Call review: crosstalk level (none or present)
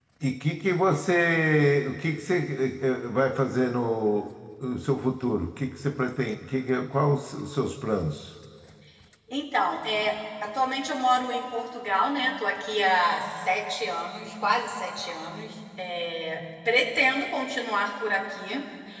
none